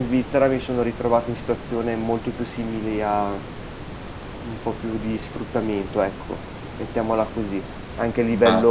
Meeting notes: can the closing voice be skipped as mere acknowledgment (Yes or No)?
Yes